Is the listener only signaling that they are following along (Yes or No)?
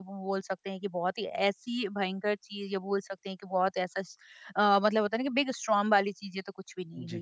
No